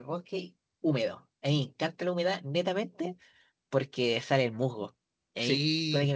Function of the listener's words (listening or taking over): listening